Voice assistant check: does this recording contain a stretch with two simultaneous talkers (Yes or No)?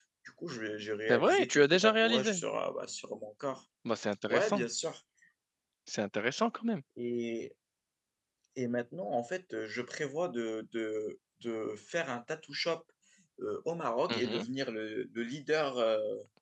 Yes